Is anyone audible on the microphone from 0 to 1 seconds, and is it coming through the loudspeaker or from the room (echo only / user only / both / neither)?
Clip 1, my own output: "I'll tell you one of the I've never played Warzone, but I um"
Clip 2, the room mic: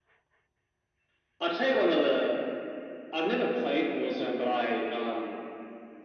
neither